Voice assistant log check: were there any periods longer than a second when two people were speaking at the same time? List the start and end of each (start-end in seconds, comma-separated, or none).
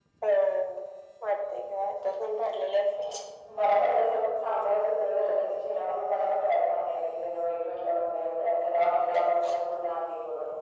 none